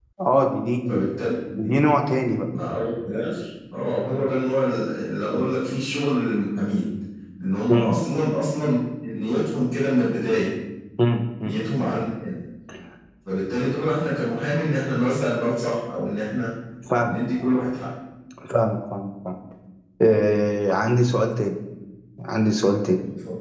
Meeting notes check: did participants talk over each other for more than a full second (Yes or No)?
No